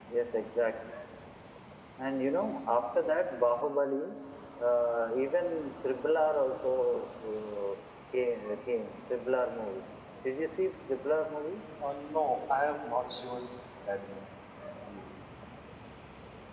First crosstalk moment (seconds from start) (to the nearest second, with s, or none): none